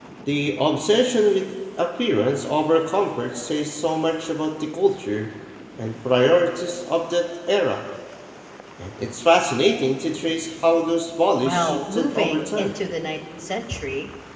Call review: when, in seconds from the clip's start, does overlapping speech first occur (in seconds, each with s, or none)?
11.4 s